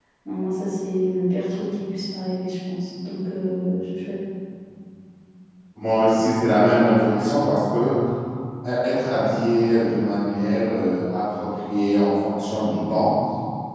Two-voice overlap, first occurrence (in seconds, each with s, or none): none